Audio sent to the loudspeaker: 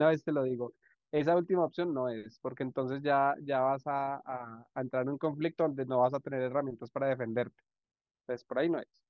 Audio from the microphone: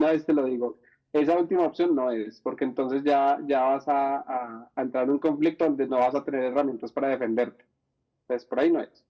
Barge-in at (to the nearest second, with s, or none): none